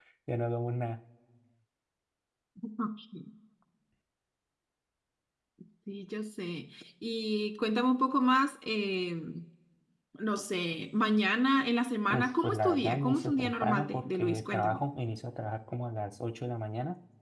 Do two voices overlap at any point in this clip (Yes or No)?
Yes